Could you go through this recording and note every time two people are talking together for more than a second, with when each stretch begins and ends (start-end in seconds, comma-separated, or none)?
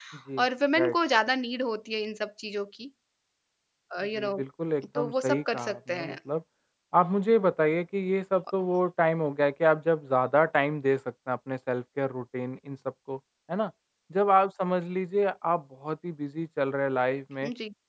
5.0-6.2